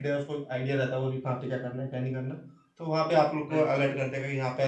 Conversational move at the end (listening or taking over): listening